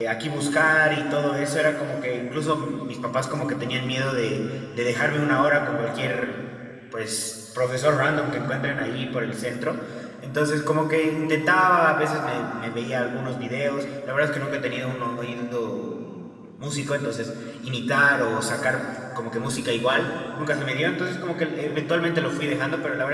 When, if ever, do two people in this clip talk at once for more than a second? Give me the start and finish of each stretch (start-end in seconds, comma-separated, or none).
none